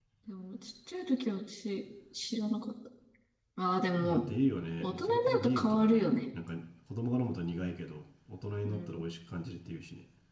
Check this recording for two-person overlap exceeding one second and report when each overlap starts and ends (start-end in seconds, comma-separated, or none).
4.8-6.1